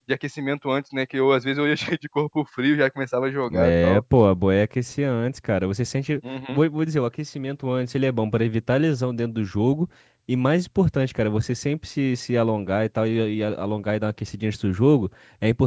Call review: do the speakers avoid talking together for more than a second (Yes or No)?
Yes